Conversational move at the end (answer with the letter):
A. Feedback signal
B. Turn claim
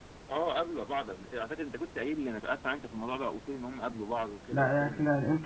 B